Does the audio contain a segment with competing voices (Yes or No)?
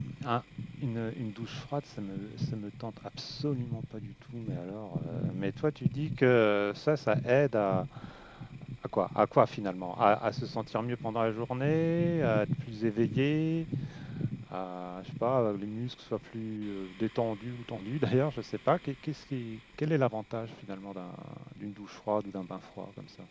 No